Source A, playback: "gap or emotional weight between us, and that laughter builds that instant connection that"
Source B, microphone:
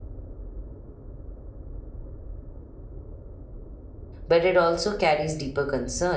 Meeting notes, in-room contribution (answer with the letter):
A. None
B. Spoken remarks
B